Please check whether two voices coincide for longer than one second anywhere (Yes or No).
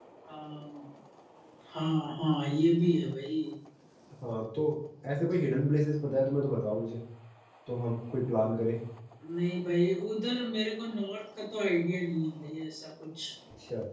No